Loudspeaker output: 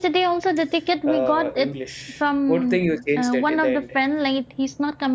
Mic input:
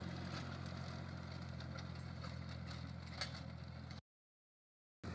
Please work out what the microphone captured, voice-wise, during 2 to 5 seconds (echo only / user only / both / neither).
neither